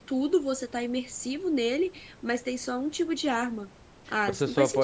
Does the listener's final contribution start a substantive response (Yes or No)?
Yes